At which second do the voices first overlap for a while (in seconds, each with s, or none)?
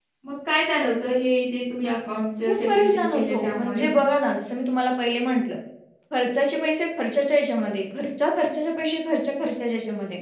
2.5 s